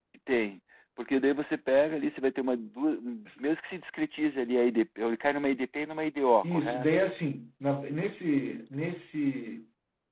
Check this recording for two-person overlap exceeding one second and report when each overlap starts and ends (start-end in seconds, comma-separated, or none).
none